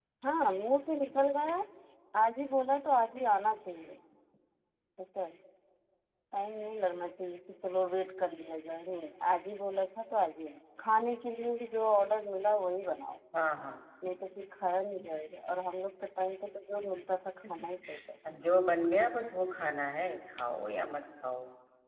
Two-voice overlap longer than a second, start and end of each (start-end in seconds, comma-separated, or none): none